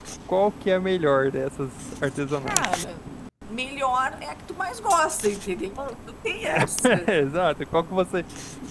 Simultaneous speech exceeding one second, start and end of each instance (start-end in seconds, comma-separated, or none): none